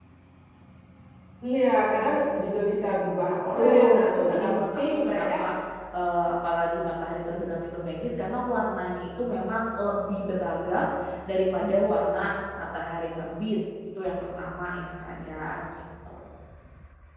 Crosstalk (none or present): present